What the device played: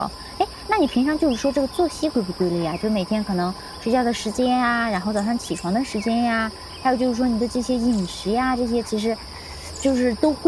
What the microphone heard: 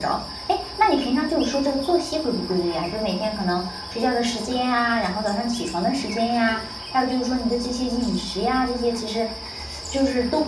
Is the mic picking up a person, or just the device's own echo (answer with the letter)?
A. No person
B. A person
A